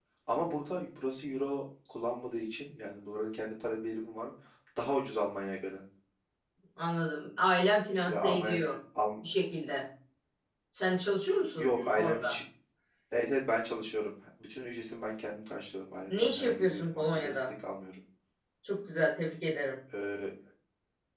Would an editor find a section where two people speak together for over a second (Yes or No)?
Yes